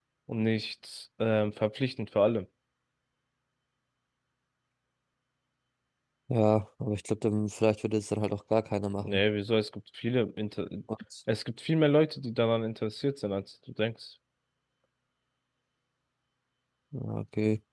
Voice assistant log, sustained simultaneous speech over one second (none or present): none